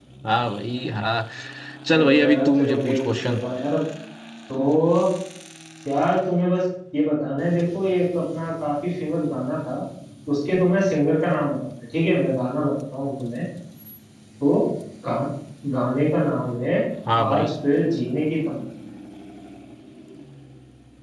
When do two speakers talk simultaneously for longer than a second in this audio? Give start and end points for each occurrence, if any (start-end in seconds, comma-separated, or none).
1.9-3.3